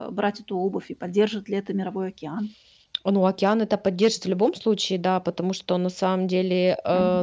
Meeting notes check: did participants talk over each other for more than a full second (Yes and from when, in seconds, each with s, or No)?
No